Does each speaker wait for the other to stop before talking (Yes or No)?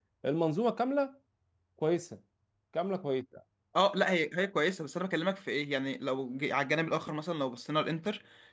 Yes